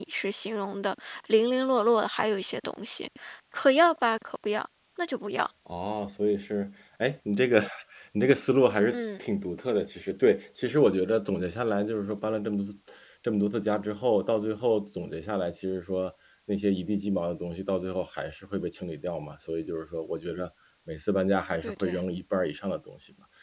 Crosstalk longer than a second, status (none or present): none